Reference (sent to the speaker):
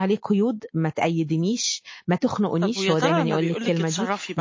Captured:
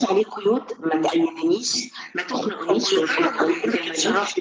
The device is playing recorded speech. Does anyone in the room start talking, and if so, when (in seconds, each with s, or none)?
none